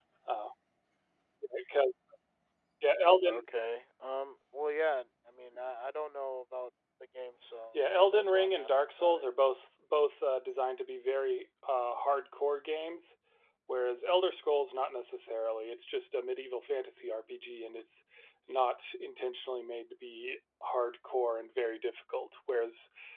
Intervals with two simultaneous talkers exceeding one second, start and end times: 7.7-9.3

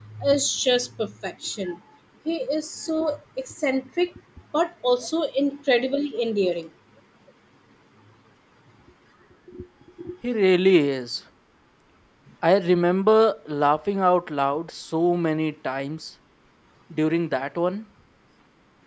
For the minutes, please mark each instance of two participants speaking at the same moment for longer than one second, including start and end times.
none

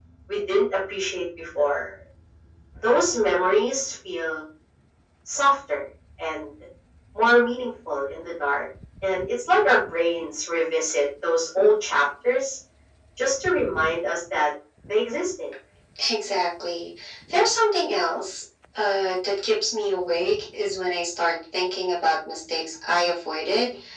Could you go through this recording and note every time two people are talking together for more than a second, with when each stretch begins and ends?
none

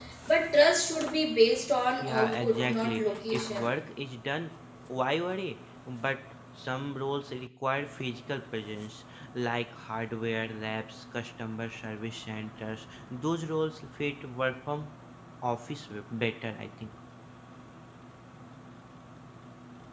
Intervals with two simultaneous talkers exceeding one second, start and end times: 2.0-3.7

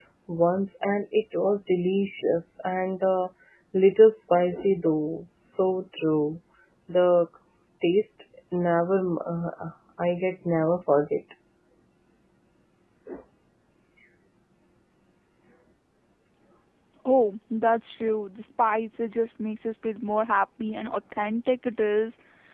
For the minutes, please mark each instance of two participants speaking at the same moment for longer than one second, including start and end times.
none

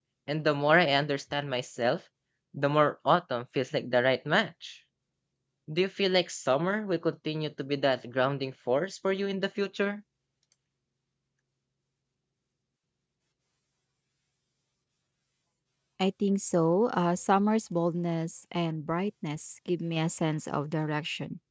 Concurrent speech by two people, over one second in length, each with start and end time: none

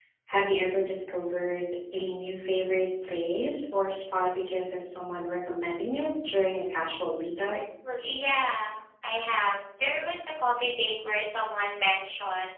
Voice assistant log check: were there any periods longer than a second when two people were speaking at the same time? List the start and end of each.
none

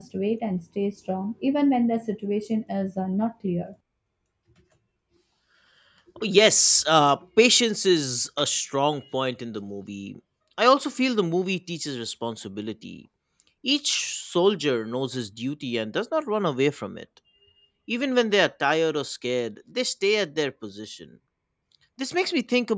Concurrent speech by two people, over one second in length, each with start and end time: none

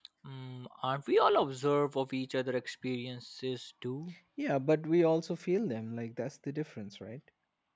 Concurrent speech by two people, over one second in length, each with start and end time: none

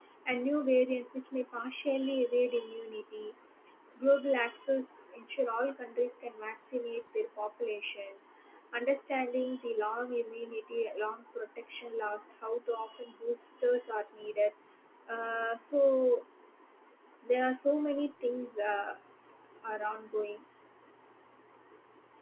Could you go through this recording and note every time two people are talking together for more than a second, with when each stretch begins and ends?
none

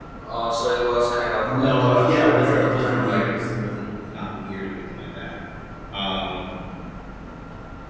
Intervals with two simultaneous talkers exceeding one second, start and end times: 1.4-3.3

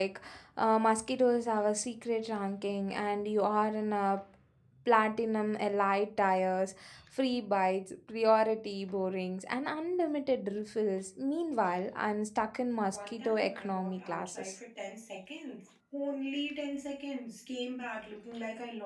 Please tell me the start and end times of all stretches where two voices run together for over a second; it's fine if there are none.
12.8-14.6

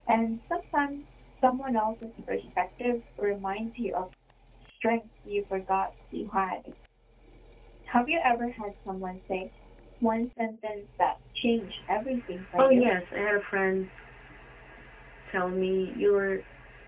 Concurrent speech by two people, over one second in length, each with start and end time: none

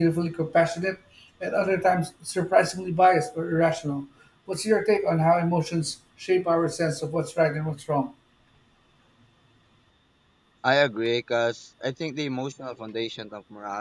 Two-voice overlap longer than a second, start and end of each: none

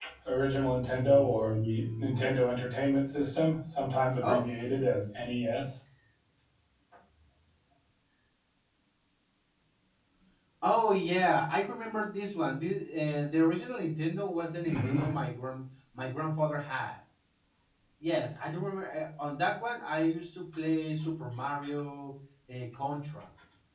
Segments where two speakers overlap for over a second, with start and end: 0.9-2.3

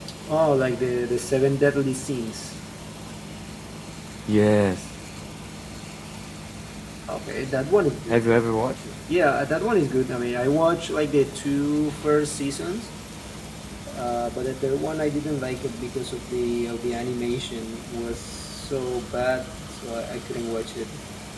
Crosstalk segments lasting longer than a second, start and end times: none

